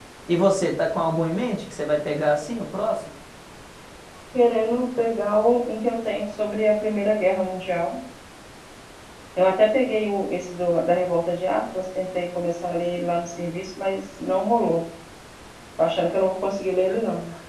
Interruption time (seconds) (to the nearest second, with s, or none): none